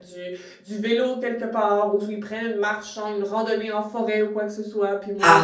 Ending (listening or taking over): taking over